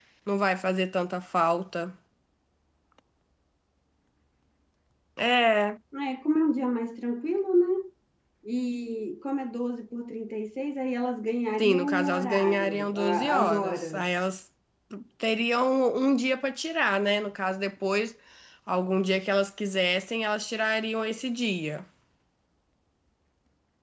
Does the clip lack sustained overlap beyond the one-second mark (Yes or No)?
No